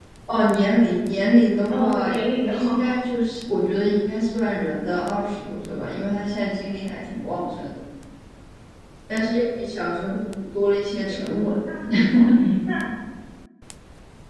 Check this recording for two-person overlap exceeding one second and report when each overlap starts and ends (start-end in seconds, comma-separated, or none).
none